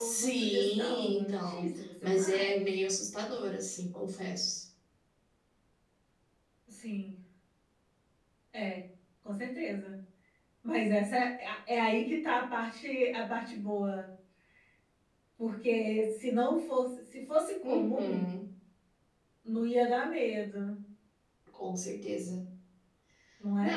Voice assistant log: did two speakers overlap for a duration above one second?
Yes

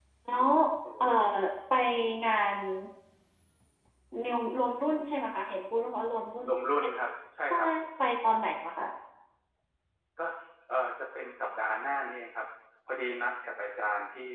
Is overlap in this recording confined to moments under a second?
Yes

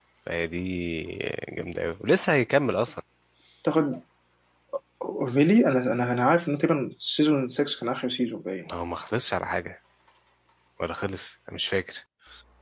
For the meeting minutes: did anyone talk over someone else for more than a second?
No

